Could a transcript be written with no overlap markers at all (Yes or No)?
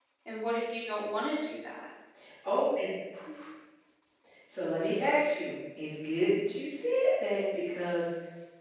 Yes